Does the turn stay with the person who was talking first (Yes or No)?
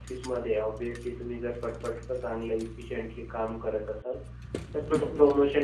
Yes